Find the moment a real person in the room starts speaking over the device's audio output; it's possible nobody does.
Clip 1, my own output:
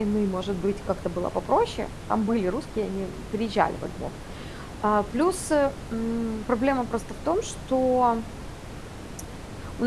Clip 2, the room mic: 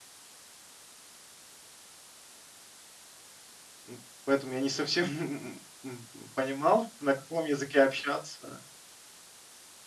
3.9 s

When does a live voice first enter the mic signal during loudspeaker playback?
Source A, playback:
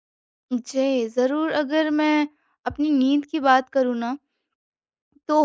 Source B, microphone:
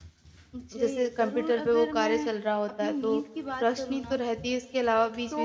0.8 s

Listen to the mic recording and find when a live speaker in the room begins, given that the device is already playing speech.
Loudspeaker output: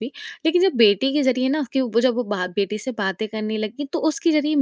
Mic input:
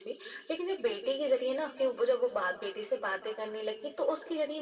none

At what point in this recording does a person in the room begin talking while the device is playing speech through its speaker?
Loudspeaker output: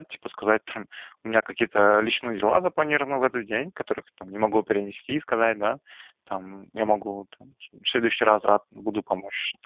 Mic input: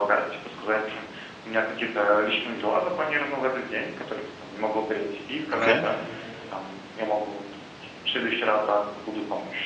5.5 s

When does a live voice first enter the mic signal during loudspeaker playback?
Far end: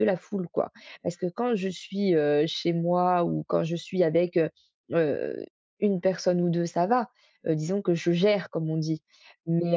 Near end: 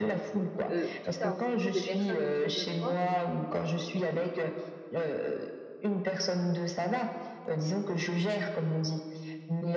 0.7 s

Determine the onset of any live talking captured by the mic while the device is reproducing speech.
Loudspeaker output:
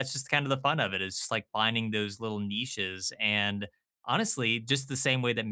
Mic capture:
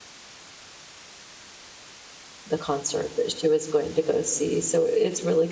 2.5 s

